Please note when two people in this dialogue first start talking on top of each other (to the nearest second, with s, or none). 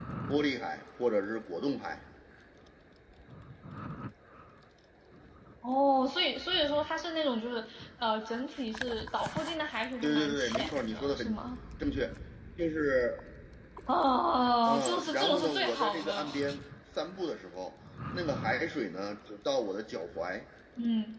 10 s